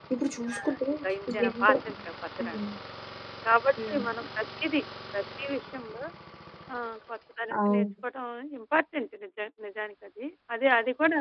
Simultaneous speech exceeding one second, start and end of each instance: none

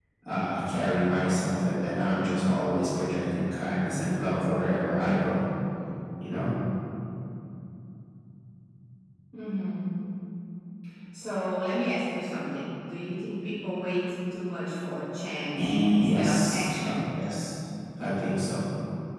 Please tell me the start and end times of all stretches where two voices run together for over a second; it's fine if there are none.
15.6-16.9

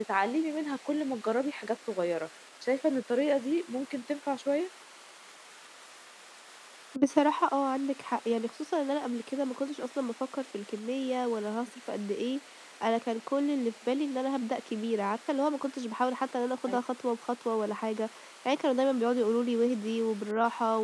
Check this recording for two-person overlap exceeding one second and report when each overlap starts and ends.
none

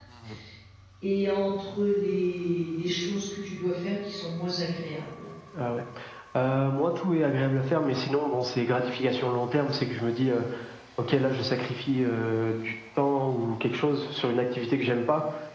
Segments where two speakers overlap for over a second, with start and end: none

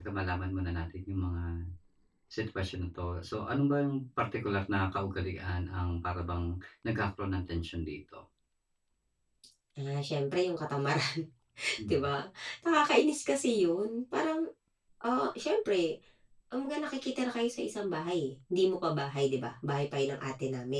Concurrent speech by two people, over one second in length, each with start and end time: none

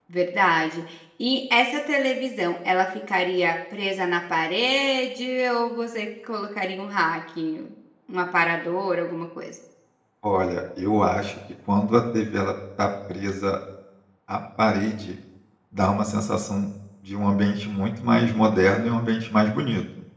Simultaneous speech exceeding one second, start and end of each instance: none

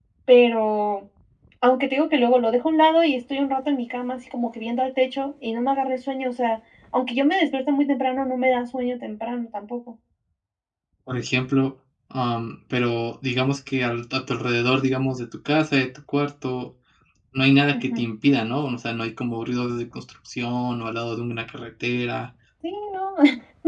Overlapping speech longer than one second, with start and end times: none

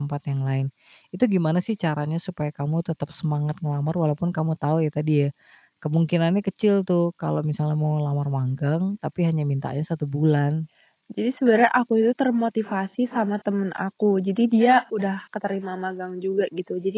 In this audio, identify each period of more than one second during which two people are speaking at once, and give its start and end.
none

